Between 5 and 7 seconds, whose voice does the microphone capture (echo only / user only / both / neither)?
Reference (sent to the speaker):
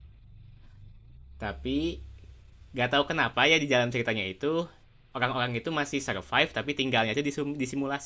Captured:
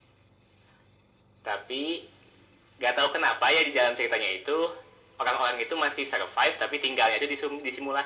echo only